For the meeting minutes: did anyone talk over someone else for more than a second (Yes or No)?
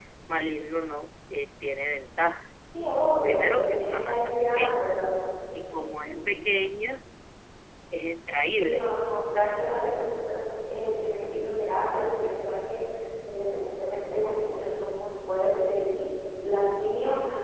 Yes